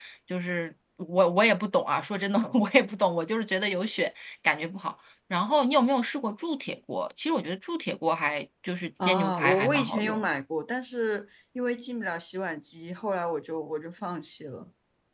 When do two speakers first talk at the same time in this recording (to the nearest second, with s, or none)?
9 s